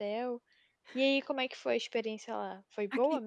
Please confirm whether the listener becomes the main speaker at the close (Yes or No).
Yes